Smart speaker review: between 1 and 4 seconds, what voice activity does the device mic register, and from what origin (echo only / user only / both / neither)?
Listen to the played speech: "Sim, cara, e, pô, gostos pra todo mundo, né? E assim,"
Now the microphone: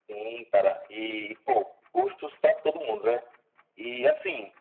echo only